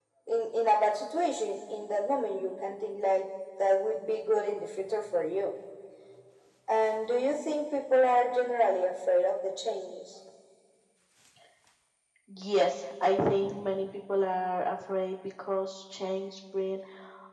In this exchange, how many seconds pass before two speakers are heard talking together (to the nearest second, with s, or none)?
none